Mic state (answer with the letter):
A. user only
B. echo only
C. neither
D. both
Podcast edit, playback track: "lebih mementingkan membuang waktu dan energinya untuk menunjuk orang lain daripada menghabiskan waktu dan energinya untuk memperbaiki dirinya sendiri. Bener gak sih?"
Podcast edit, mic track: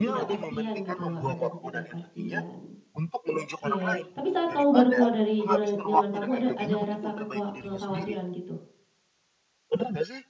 D